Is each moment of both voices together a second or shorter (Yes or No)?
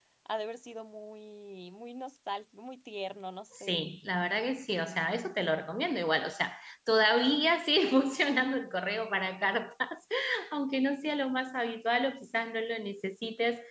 Yes